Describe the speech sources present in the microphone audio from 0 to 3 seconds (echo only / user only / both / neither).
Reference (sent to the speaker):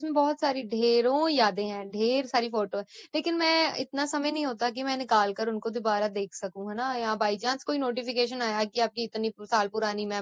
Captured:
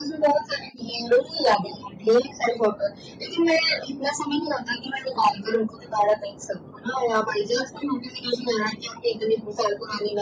echo only